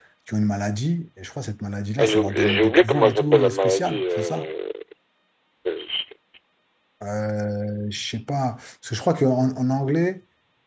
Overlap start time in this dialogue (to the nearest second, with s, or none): 2 s